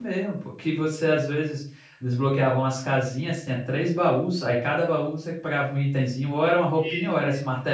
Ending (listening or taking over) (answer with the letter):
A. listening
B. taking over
A